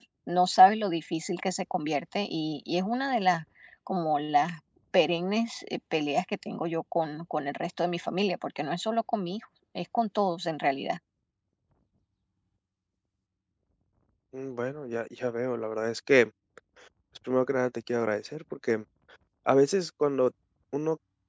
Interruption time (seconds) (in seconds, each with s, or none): none